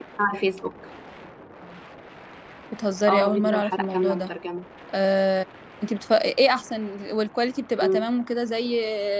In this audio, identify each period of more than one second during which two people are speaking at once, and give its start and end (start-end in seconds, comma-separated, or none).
3.1-4.3